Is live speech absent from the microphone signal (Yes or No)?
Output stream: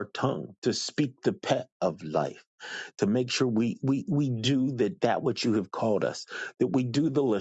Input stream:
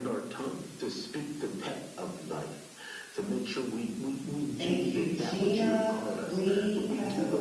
No